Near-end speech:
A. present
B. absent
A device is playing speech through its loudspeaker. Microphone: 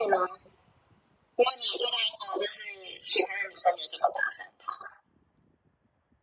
B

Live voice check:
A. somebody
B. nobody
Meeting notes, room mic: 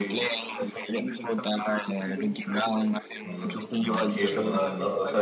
A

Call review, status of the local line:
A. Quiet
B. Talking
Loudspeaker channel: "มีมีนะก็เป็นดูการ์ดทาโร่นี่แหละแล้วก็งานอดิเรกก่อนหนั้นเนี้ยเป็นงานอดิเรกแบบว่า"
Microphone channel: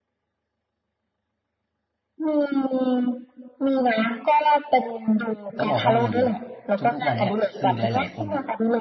B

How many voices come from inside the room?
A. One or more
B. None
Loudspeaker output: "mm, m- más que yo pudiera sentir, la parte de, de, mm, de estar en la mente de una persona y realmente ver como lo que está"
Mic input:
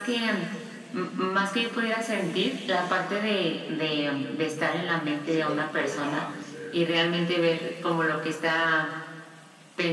A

